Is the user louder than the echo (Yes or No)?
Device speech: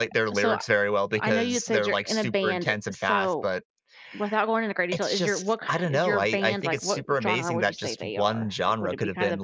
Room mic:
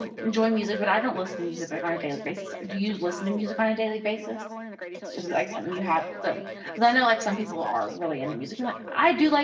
Yes